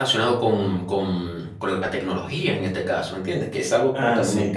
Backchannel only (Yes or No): Yes